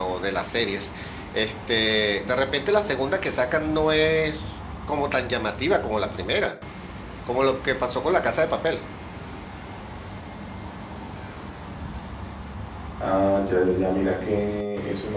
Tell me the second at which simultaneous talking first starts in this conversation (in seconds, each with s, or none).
none